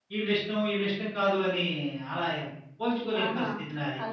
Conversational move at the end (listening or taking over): taking over